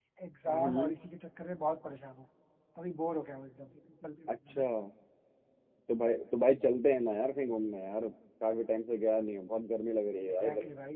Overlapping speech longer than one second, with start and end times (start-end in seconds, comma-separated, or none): none